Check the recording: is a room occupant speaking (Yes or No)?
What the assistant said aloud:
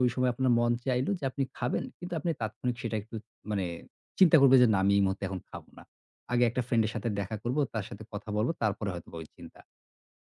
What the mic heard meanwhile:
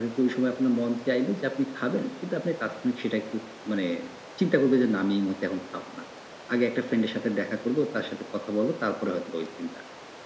No